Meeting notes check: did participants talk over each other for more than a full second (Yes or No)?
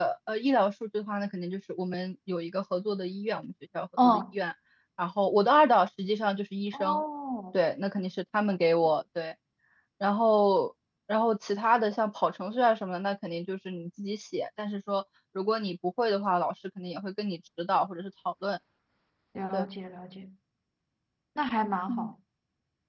No